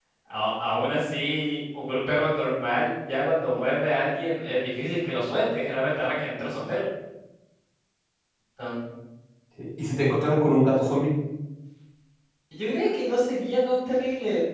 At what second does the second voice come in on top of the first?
none

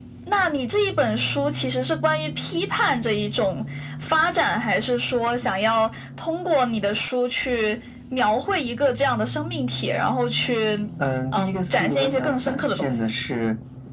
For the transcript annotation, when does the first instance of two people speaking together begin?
11.3 s

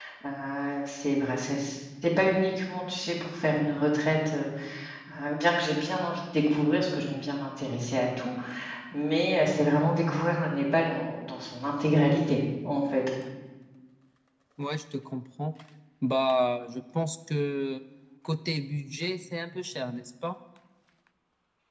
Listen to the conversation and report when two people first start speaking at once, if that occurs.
none

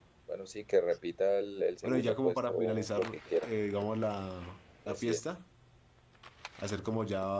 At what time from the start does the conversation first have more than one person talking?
1.8 s

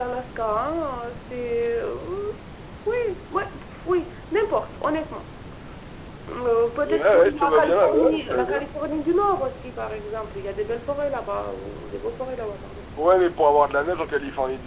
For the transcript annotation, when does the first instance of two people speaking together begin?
6.9 s

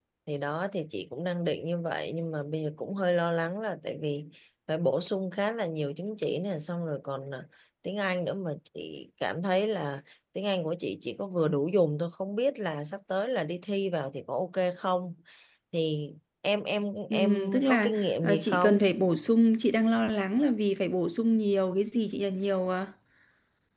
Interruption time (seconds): 17.1 s

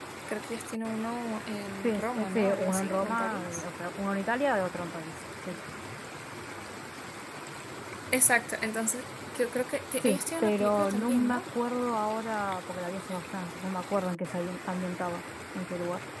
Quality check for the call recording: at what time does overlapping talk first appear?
1.8 s

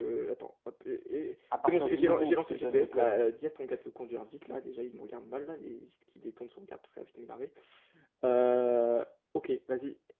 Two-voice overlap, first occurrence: 1.5 s

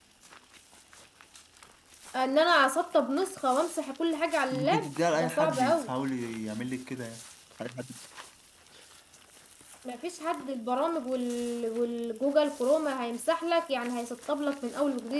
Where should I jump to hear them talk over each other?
4.5 s

